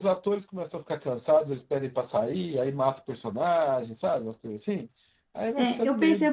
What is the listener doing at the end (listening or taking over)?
taking over